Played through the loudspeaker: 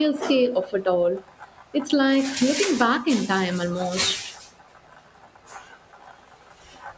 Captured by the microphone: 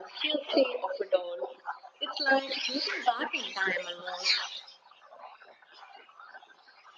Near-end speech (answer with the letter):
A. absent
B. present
A